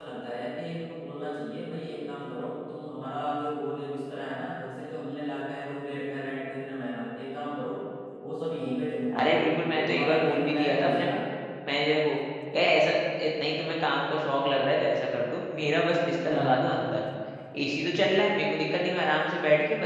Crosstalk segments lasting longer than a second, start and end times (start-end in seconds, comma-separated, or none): 9.2-11.1